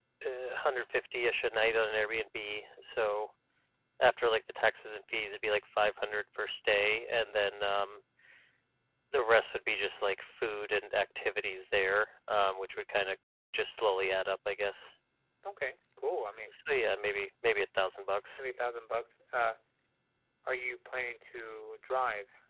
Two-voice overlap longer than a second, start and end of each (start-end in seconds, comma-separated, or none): none